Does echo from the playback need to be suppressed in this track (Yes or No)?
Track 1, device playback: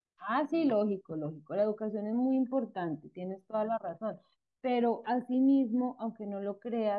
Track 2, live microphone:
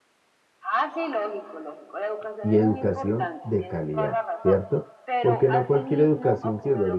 Yes